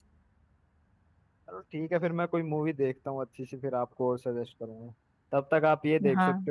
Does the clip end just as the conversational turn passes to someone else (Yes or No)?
No